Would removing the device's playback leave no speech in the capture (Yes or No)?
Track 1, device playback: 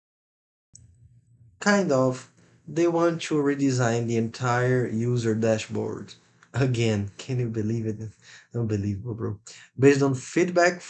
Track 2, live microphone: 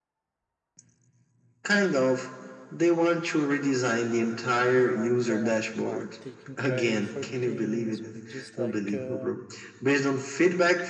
No